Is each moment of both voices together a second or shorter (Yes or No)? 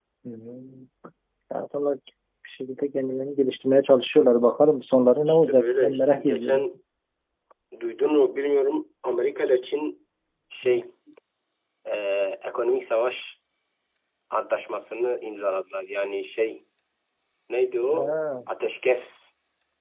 No